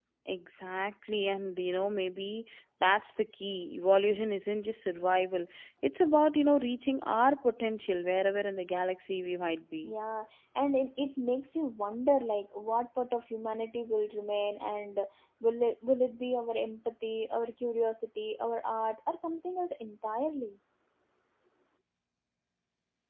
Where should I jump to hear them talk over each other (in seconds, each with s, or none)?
none